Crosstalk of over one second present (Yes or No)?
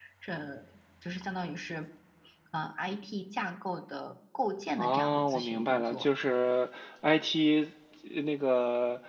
Yes